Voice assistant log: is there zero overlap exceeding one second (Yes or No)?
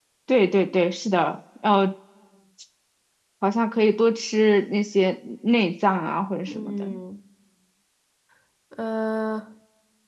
Yes